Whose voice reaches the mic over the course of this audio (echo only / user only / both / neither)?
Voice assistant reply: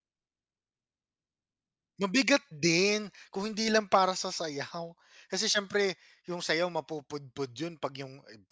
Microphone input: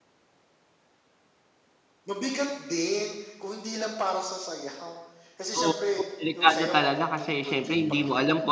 both